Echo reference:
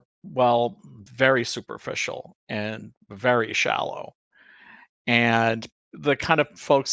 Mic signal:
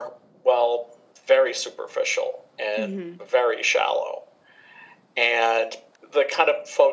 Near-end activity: present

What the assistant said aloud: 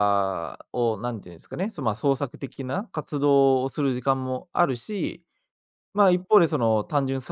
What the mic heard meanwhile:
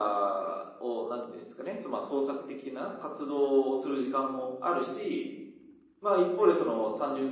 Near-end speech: none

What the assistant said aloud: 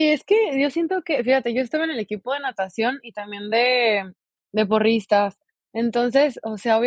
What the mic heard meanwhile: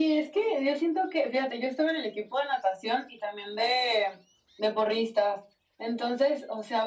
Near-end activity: none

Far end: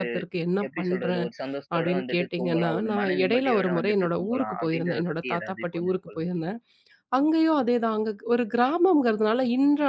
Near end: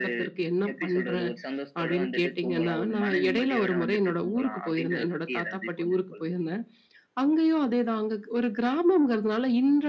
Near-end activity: none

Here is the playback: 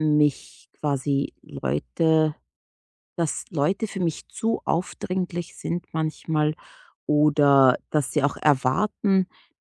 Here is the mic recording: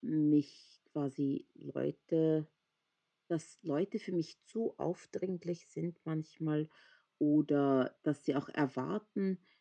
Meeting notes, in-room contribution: none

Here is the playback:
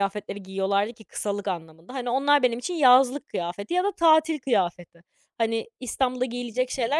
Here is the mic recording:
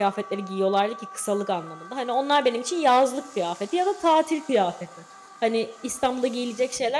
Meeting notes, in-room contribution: none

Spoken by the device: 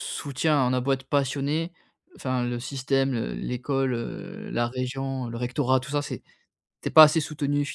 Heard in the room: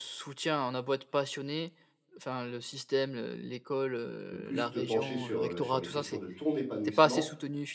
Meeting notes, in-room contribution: present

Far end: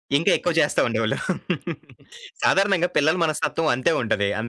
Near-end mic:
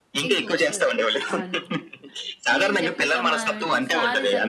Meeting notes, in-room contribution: present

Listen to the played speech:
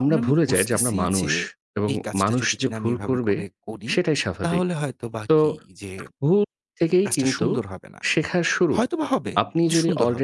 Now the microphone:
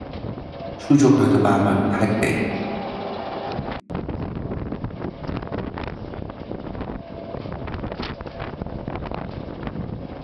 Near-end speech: present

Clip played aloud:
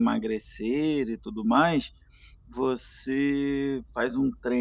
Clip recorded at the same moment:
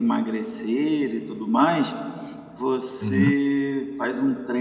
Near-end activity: present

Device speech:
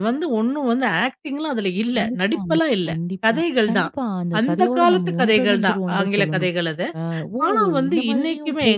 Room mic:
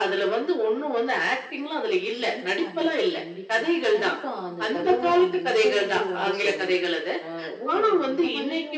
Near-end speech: none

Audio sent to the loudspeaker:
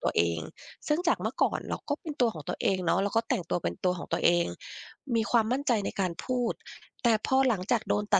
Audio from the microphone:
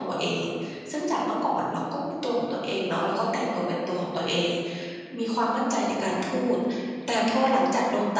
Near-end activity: none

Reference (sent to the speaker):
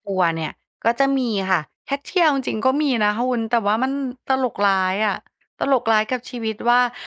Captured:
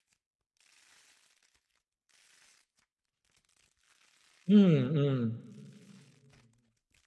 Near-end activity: present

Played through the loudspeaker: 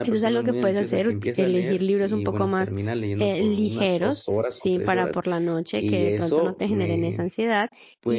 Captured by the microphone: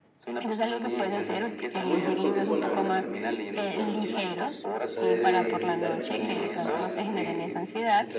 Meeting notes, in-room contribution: present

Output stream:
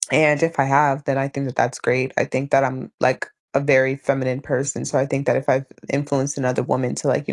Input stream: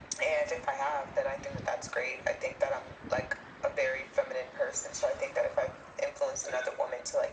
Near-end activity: none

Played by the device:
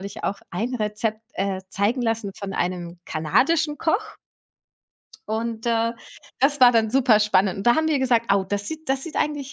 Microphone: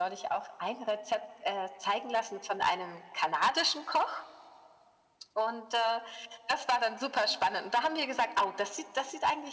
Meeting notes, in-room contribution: none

